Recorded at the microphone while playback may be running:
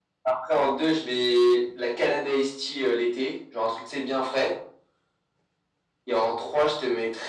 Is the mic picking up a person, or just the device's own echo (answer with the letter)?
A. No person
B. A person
A